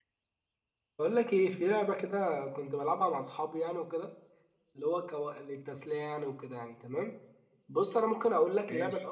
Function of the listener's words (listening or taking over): listening